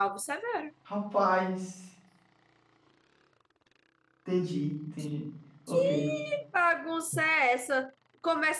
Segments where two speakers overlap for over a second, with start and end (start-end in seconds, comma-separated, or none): none